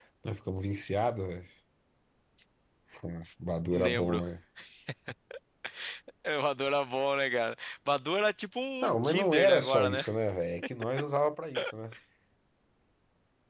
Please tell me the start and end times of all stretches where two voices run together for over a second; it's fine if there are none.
8.8-10.0

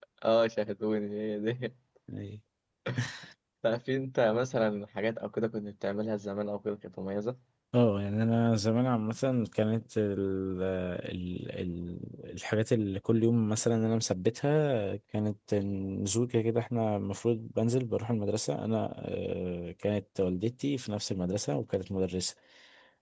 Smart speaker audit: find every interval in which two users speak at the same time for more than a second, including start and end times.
none

